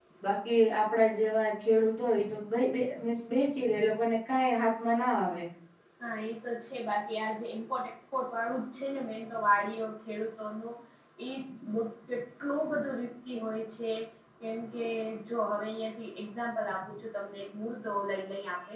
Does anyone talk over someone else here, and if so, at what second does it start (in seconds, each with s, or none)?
none